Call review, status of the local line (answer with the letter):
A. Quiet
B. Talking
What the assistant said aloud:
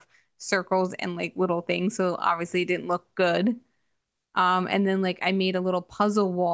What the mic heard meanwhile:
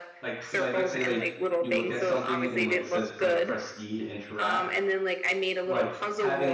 B